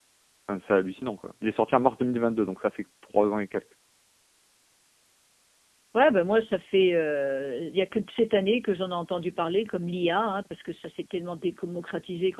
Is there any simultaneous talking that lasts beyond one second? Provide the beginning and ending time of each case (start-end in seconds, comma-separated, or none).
none